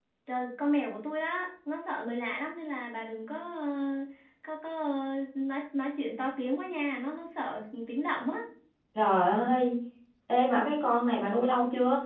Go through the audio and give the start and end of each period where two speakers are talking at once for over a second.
none

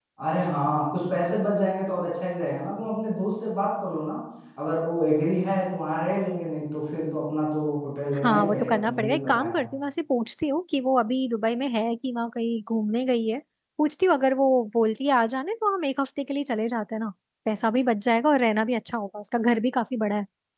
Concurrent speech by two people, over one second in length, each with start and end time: 8.2-9.6

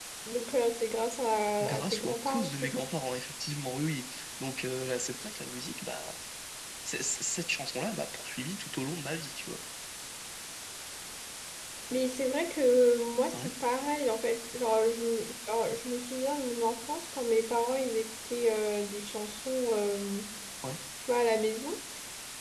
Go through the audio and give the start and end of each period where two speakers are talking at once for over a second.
1.6-2.9

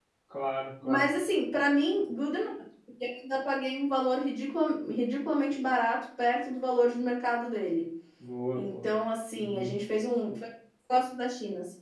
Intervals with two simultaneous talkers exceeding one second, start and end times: none

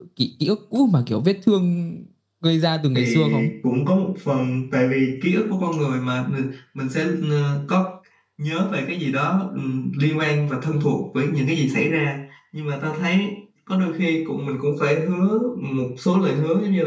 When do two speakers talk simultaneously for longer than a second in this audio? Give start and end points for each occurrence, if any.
none

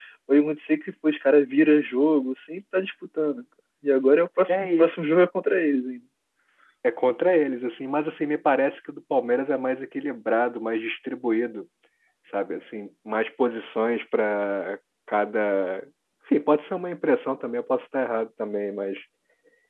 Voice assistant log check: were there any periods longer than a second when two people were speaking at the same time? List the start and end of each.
none

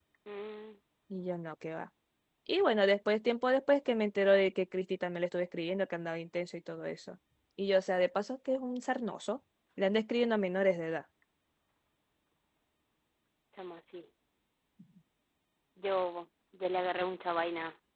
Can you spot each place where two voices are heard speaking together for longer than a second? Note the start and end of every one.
none

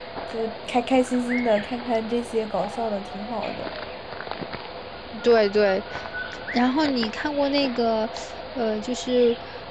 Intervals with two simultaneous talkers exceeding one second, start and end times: none

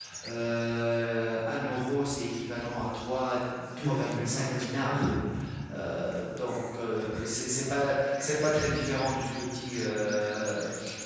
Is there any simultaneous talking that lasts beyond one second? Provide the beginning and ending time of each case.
3.8-5.0

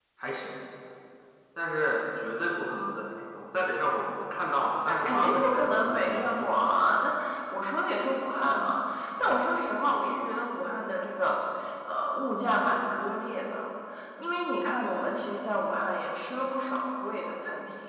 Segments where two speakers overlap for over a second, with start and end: 5.0-6.7

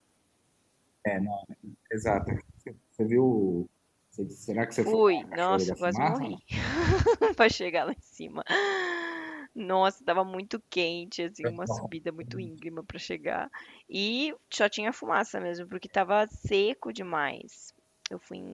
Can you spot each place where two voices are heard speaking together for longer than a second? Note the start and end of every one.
4.8-6.4

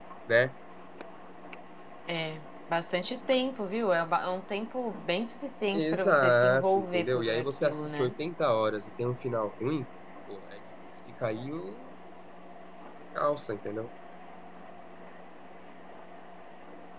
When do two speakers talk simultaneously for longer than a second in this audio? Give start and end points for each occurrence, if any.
5.7-8.1

